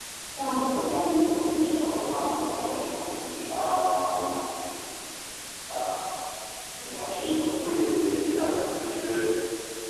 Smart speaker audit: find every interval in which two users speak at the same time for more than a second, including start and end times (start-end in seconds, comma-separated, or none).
none